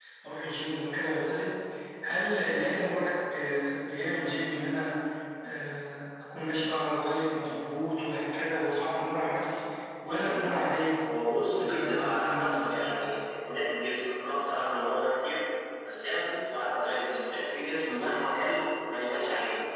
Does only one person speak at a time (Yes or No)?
No